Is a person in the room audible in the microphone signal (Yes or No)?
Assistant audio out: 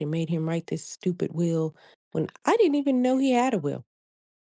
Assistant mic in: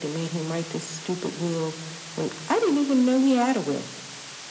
No